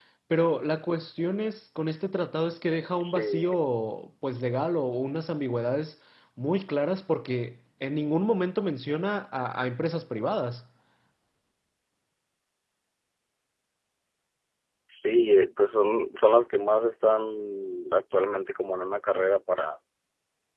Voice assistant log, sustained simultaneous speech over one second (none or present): none